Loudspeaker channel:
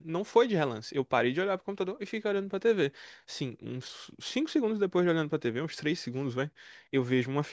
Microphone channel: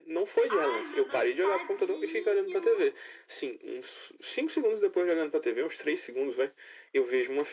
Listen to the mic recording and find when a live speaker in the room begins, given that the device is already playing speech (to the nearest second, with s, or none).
0 s